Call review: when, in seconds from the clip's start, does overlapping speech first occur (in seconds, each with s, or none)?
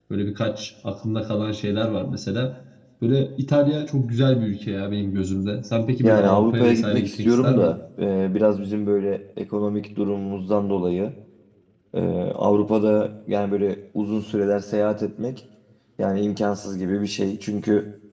6.0 s